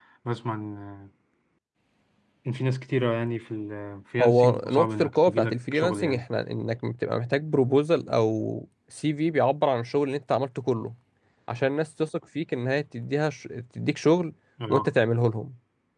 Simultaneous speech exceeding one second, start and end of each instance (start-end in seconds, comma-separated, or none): 4.2-6.2